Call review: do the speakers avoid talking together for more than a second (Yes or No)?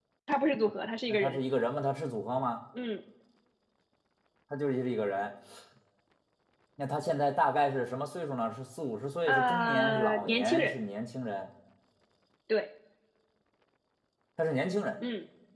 No